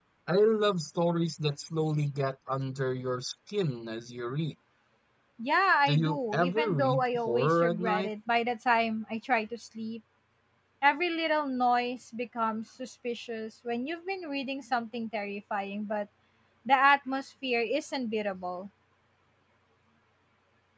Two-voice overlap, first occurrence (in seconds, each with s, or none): 5.9 s